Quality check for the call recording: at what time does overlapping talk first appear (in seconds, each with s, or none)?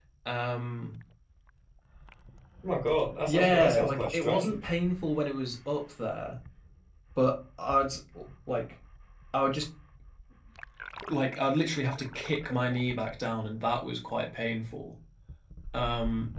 3.3 s